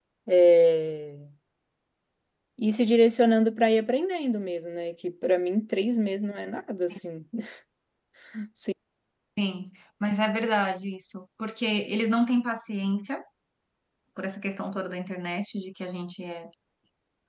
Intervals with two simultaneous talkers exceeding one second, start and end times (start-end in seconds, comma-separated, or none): none